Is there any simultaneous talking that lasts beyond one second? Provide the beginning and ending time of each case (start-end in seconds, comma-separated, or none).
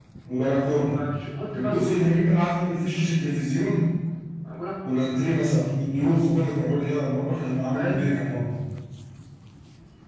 none